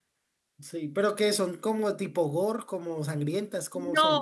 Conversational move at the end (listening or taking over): taking over